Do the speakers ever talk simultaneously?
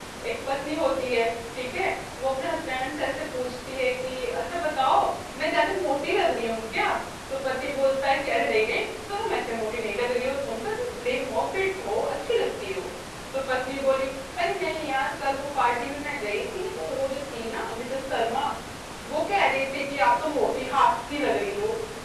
No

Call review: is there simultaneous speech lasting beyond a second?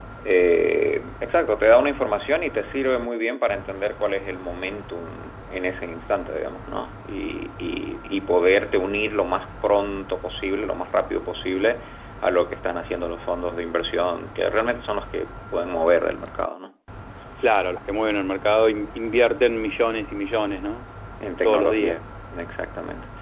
No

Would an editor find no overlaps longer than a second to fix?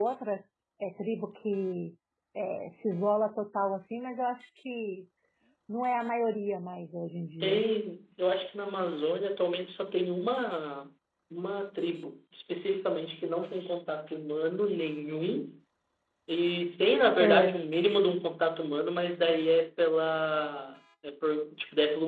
Yes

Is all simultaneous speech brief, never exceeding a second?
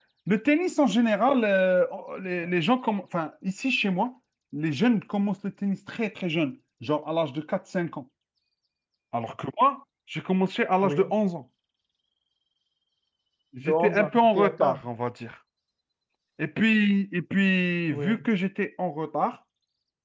No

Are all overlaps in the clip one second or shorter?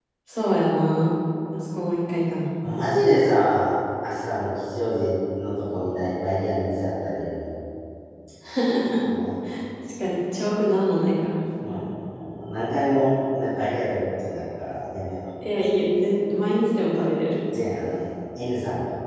Yes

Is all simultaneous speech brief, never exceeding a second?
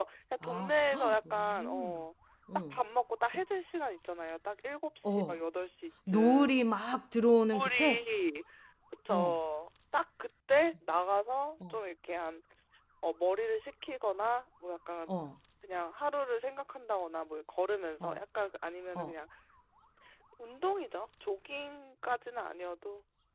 No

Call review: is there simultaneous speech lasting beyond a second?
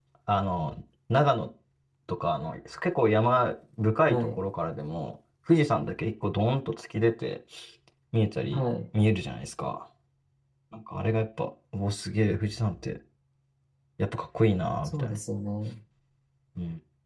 No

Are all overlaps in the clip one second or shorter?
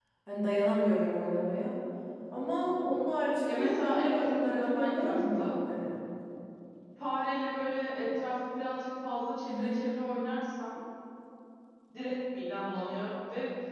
No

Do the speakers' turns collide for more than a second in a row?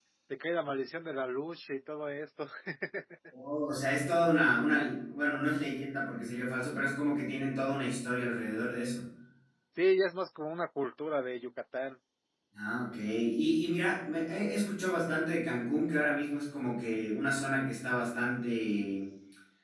No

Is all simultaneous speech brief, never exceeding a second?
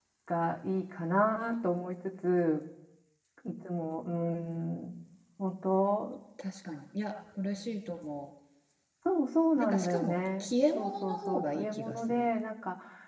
No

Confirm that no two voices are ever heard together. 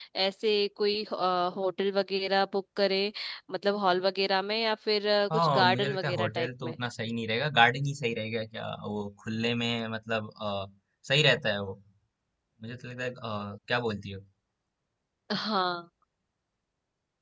No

